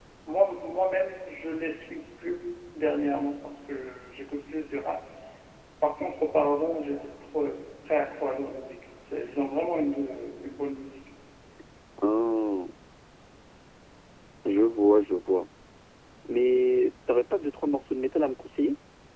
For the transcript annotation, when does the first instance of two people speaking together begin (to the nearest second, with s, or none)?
none